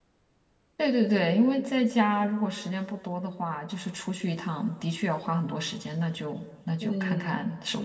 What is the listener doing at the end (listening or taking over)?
taking over